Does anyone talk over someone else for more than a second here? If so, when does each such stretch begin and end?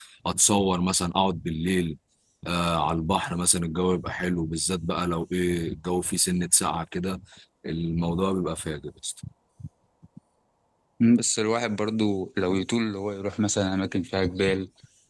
none

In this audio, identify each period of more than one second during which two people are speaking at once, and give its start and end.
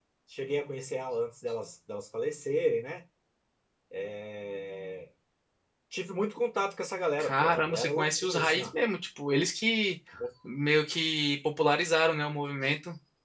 7.2-8.7

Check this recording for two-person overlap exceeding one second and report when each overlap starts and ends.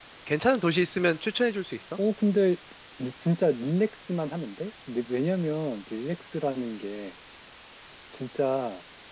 none

